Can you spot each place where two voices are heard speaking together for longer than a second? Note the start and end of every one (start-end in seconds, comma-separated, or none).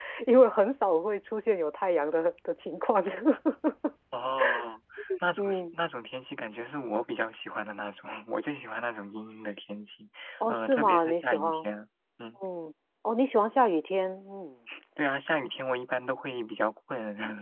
10.5-11.7